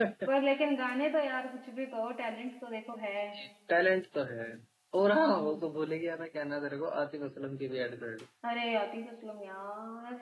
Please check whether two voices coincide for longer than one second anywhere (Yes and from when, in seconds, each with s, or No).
No